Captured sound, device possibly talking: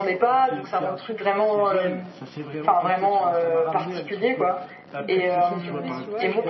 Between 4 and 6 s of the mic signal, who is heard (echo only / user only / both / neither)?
both